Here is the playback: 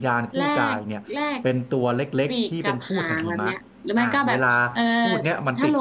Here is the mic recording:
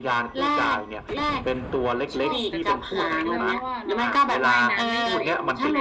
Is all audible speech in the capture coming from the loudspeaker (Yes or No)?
No